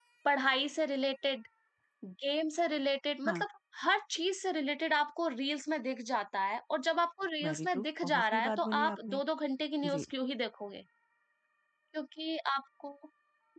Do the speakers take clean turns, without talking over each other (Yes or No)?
No